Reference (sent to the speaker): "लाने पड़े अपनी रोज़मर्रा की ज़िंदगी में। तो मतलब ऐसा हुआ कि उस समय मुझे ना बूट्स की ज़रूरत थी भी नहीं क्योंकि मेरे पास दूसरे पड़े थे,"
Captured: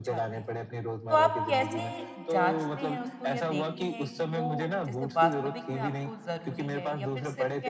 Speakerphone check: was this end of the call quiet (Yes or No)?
No